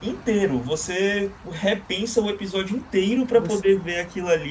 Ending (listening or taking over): listening